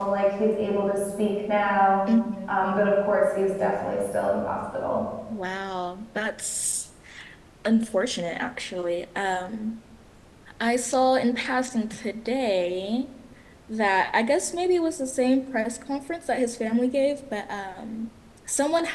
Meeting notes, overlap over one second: none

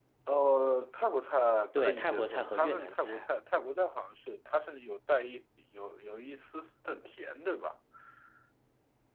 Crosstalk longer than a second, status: present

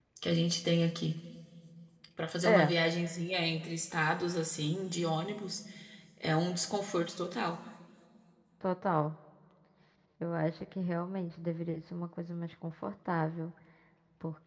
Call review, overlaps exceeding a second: none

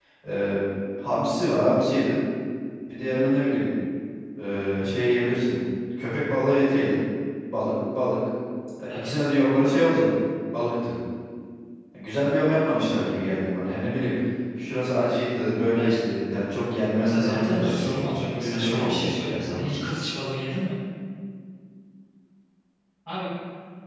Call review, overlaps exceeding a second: present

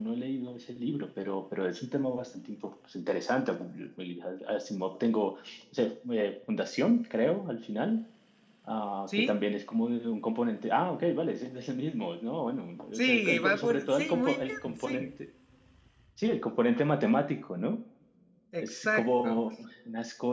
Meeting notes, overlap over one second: present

